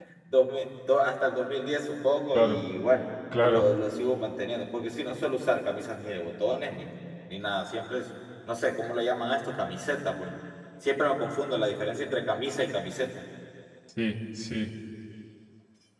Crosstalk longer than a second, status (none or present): none